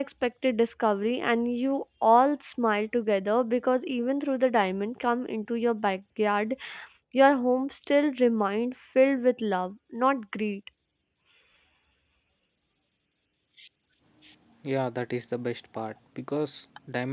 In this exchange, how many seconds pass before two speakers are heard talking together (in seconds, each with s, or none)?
none